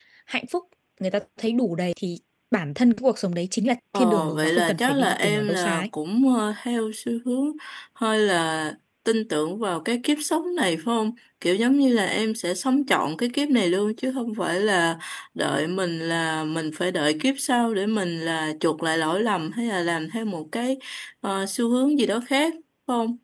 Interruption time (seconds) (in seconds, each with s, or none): 3.9 s